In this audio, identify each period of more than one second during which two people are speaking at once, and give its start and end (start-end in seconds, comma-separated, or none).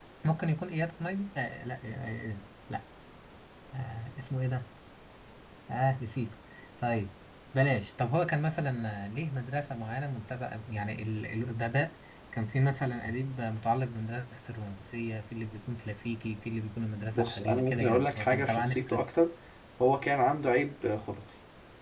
17.1-19.0